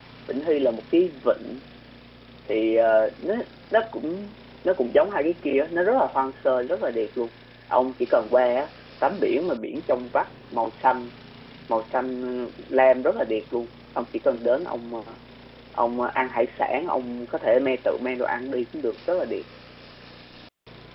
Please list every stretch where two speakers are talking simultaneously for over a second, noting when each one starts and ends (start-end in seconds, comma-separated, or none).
none